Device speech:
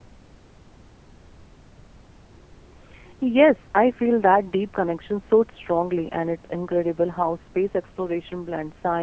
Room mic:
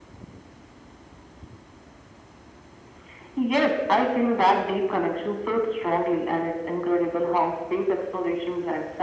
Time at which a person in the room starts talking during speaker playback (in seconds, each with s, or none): none